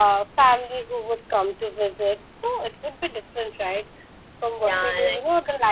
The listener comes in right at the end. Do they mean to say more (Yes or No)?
No